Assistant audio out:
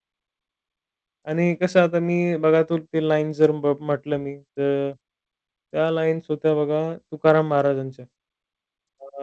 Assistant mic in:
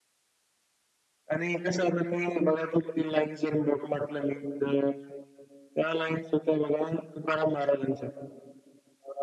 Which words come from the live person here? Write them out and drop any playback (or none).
none